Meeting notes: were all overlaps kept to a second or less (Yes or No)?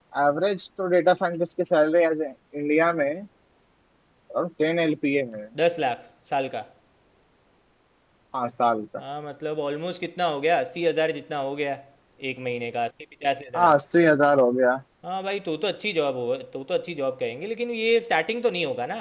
Yes